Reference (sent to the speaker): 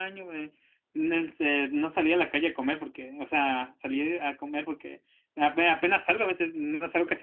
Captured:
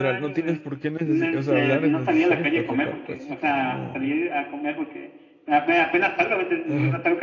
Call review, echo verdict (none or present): present